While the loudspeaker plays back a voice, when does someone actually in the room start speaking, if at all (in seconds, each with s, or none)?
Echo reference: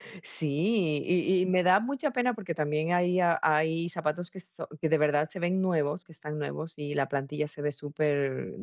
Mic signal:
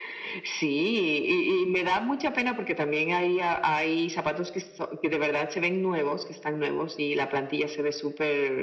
none